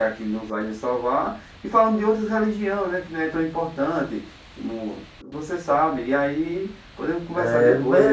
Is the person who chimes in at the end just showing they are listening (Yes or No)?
No